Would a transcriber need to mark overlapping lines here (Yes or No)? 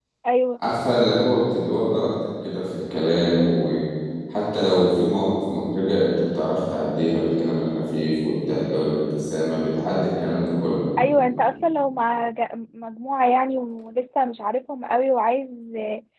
No